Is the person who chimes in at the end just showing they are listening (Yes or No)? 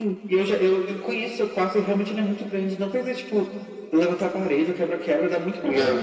Yes